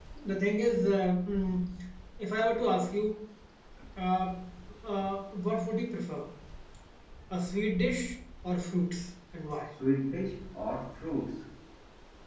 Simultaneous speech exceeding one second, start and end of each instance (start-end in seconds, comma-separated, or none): none